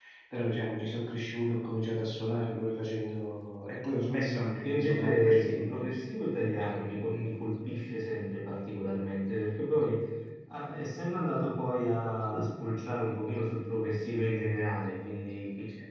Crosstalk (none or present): present